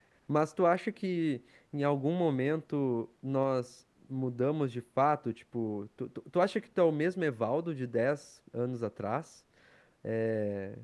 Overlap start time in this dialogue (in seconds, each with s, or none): none